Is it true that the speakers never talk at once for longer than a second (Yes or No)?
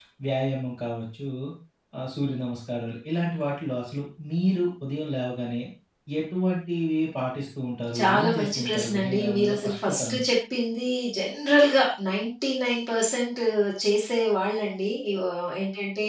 No